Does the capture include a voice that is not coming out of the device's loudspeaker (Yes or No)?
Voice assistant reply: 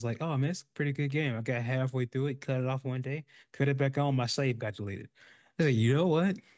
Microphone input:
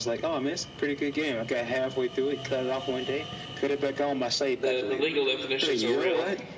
Yes